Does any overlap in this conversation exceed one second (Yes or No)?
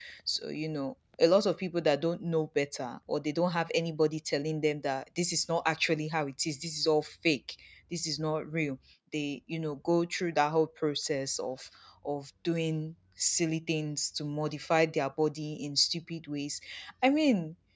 No